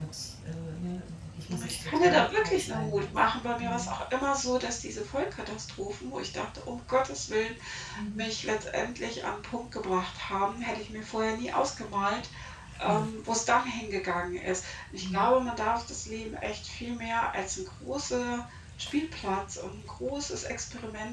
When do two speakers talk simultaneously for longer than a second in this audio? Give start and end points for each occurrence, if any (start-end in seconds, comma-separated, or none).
1.6-3.1